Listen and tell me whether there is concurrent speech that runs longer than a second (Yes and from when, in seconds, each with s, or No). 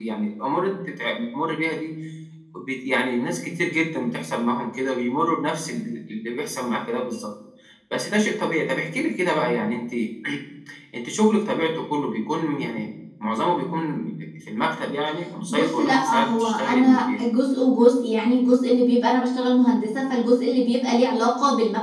Yes, from 15.5 s